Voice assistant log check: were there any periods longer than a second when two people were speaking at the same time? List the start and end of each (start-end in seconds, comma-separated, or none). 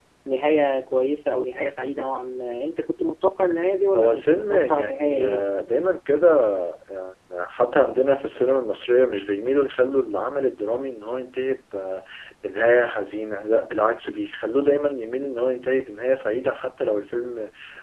4.0-5.4